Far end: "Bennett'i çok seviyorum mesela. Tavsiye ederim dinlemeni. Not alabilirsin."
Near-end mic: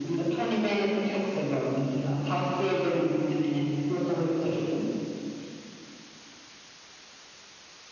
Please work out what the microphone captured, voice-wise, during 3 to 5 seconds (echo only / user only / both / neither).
echo only